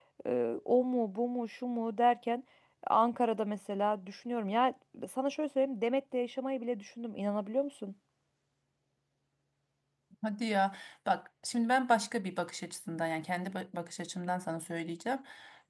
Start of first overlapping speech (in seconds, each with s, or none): none